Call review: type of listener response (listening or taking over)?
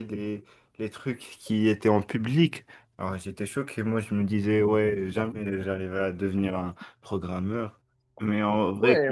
taking over